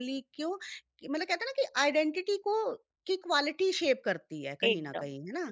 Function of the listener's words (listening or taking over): taking over